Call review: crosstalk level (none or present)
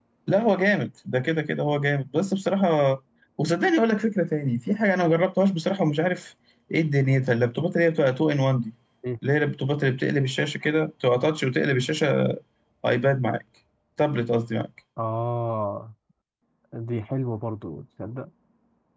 none